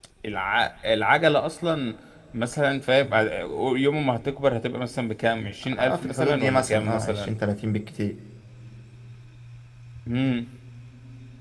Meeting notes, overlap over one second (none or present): present